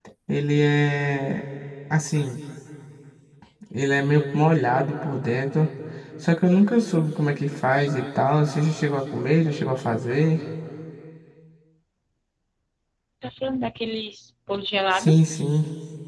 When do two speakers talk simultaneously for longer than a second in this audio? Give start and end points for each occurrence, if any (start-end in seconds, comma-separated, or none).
none